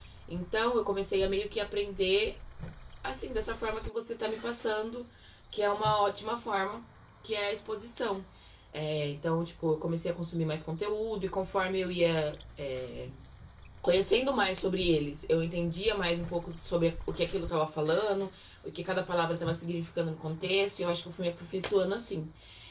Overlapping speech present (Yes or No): No